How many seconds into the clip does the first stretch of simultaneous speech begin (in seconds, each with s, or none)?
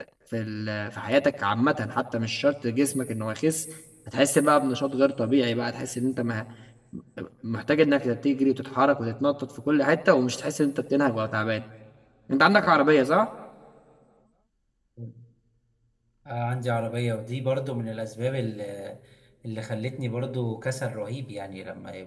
none